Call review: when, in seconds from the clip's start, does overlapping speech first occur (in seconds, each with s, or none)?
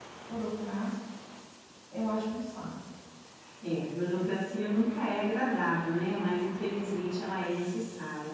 none